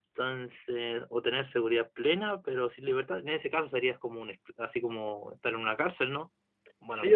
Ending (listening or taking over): taking over